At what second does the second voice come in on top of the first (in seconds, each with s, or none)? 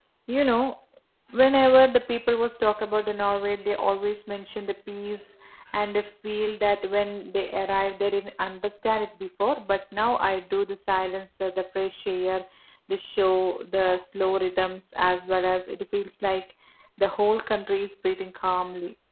none